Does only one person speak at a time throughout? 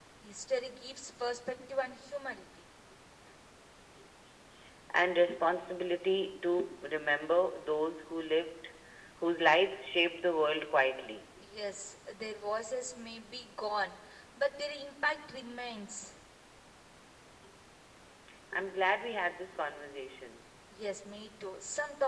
Yes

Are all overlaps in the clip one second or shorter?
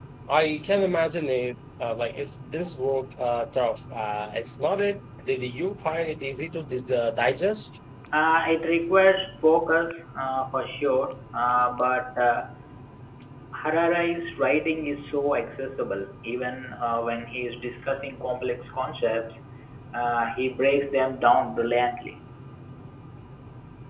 Yes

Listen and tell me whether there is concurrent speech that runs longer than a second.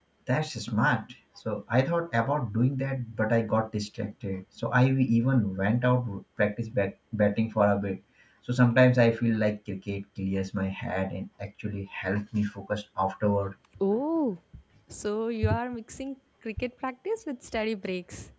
No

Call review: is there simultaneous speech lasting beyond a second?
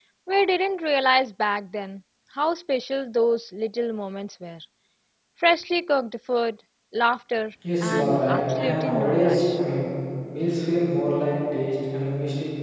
Yes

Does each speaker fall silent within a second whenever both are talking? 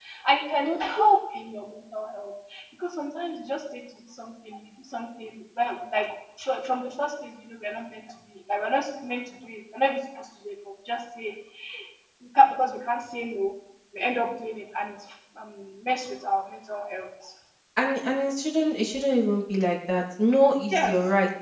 Yes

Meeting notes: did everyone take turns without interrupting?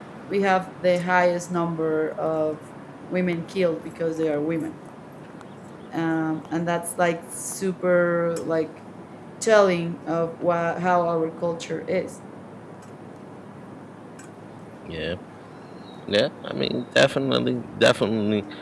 Yes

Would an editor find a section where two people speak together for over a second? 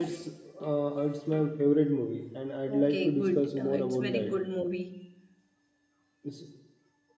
Yes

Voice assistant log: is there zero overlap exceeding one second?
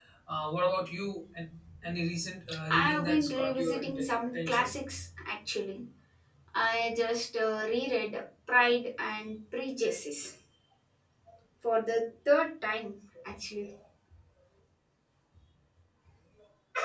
No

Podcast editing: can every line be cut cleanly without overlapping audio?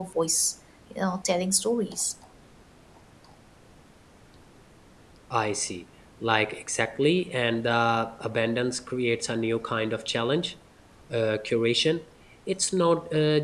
Yes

